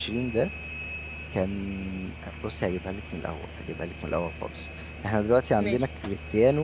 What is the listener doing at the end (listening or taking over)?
listening